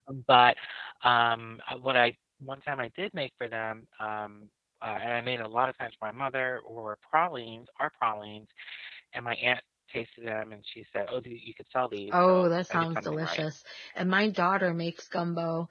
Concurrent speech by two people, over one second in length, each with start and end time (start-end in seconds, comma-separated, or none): 12.1-13.4